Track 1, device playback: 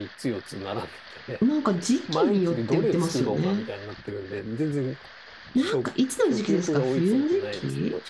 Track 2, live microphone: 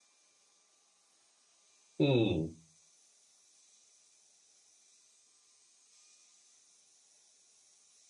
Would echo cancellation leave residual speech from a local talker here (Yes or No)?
Yes